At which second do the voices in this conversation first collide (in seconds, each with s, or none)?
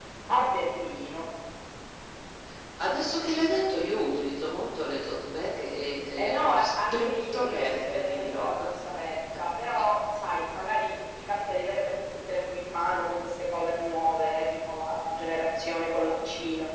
6.2 s